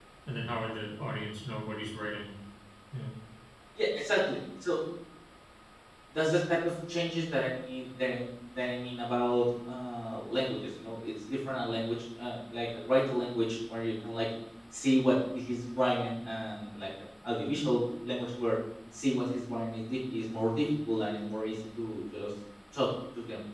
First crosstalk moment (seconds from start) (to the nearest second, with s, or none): none